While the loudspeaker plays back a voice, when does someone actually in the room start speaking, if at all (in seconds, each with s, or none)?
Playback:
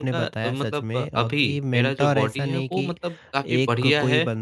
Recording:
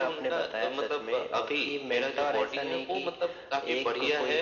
none